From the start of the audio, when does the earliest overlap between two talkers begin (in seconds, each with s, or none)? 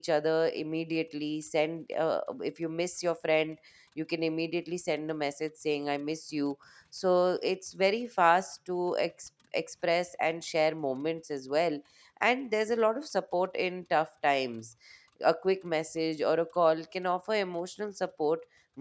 none